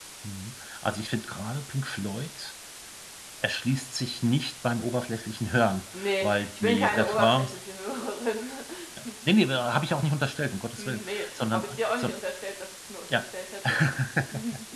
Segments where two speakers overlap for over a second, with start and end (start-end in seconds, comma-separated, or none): 6.2-7.6, 10.8-12.2